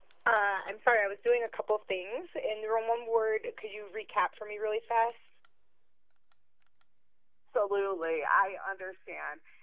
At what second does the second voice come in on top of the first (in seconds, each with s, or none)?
none